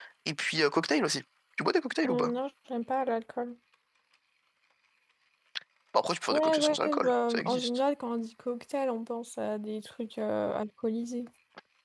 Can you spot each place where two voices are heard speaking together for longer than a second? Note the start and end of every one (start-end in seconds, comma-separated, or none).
6.3-7.8